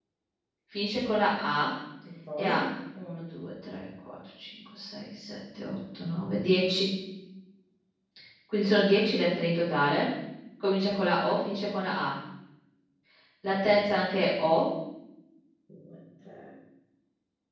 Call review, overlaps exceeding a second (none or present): none